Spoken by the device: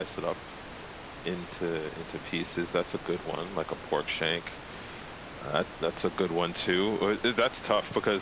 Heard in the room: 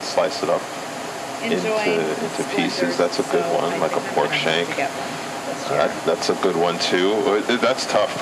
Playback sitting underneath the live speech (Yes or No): No